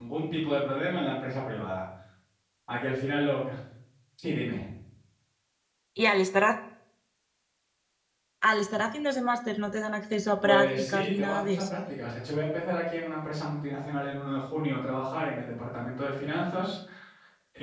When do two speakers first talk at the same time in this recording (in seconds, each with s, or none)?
10.4 s